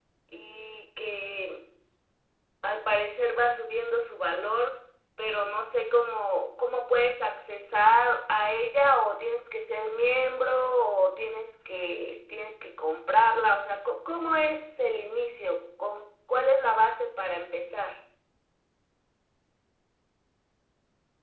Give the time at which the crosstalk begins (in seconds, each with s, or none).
none